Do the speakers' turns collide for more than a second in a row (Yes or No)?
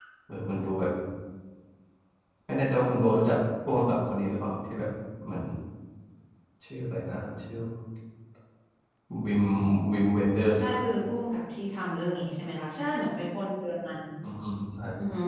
No